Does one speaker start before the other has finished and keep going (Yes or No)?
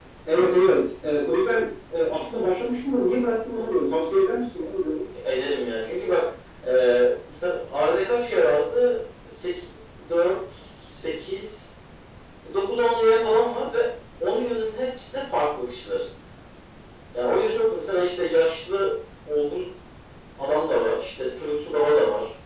No